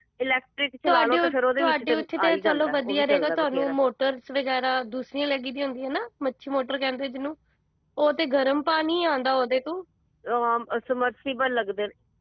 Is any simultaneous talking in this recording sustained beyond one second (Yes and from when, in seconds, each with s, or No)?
Yes, from 0.9 s